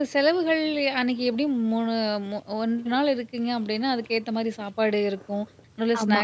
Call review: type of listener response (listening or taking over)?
listening